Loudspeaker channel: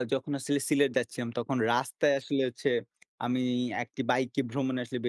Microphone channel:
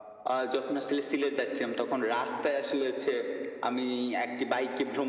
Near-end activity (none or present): none